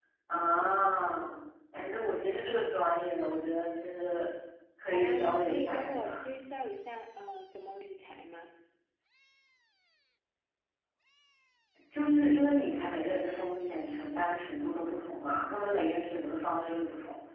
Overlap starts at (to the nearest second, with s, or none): 5 s